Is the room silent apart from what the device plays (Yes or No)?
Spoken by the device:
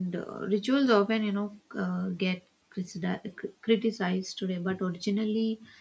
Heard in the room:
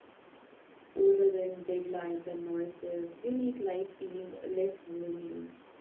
No